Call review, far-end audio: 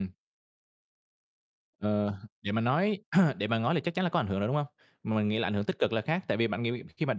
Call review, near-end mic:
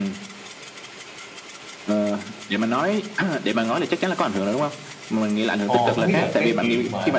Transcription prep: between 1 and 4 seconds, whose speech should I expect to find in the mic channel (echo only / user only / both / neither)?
echo only